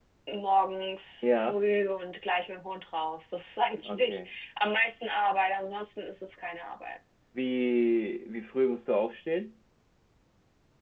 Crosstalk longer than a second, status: none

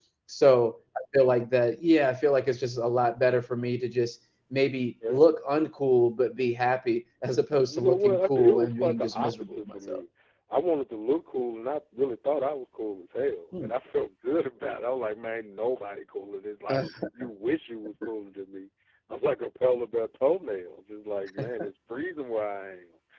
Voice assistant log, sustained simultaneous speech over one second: present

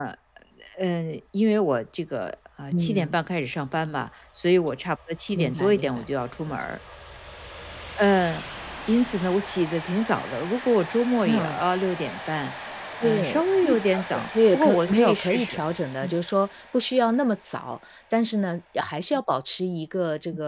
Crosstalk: present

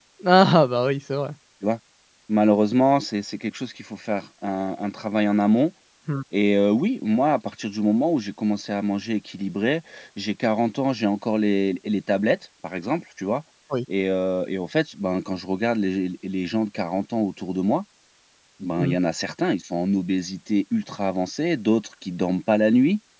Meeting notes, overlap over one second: none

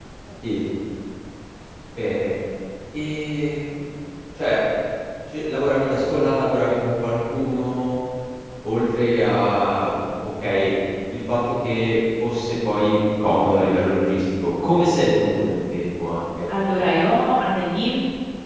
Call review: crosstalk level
none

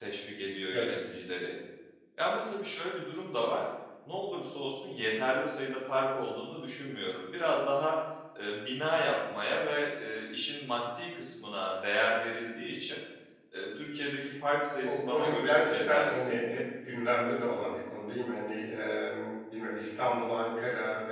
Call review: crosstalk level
present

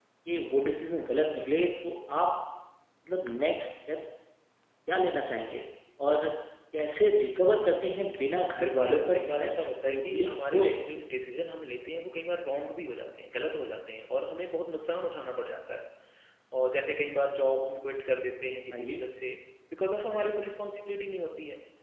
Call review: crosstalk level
present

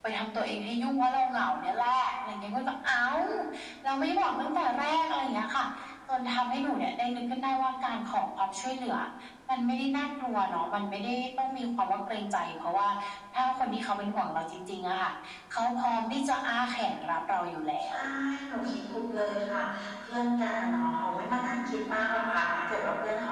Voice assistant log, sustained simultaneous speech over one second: none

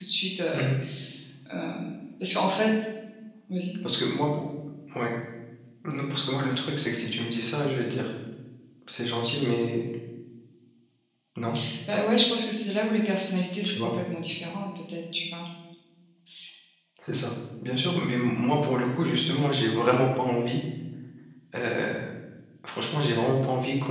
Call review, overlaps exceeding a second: none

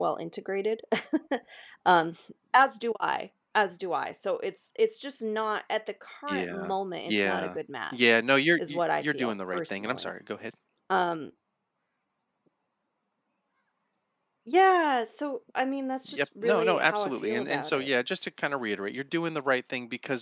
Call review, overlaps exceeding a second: present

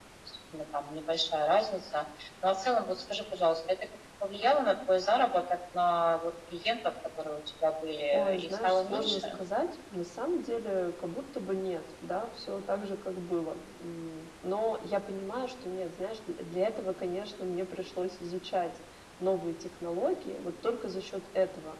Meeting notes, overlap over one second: present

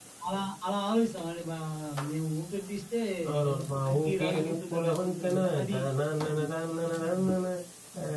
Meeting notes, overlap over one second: present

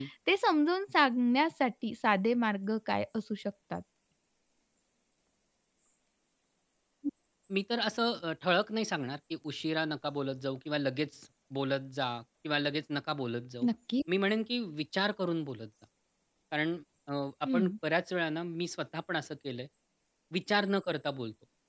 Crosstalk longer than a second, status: none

